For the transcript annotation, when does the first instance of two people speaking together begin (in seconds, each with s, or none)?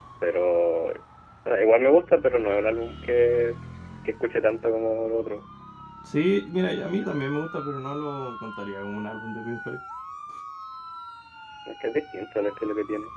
none